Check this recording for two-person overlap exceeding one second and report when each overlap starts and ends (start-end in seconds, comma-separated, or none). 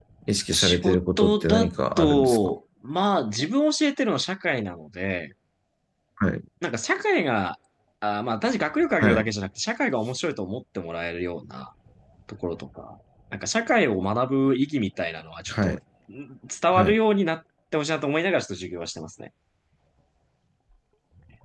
0.5-2.5